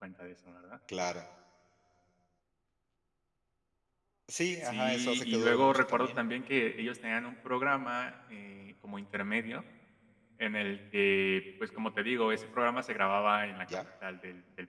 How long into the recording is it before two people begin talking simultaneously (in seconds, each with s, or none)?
4.6 s